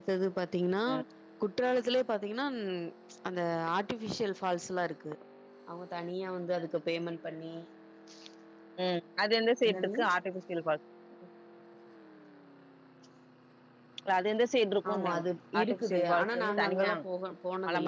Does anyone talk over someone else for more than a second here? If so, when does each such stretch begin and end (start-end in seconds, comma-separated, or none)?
15.6-16.9